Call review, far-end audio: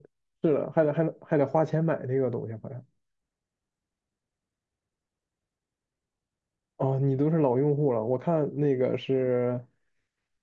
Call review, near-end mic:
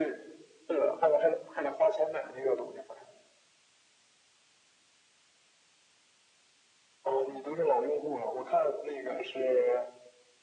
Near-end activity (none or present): none